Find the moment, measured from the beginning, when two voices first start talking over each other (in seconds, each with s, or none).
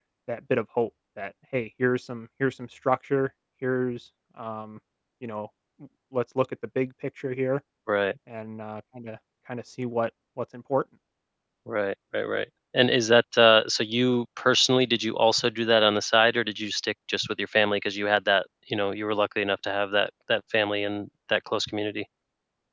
none